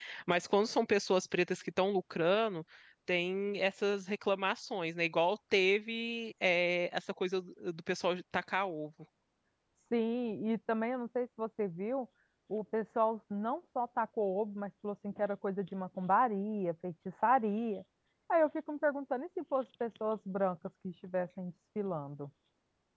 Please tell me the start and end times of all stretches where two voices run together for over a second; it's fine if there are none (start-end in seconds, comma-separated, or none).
none